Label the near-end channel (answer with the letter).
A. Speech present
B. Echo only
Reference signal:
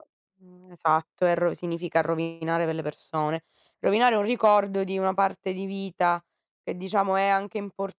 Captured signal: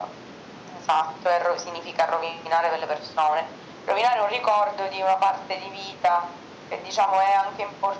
B